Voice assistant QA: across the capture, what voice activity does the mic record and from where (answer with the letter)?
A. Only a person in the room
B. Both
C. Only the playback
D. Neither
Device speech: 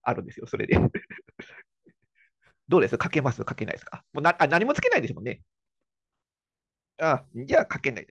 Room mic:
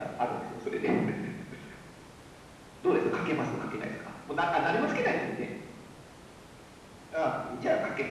C